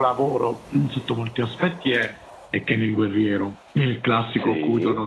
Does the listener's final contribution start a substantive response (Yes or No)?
Yes